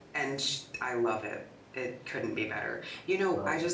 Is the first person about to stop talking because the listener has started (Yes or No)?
No